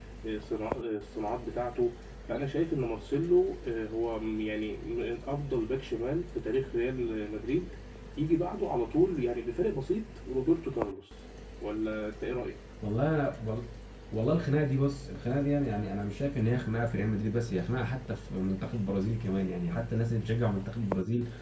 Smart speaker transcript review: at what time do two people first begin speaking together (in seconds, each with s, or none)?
none